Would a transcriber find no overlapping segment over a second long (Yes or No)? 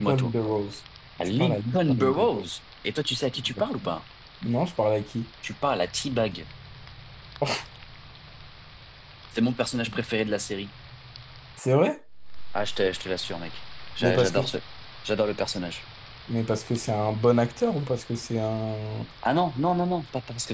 No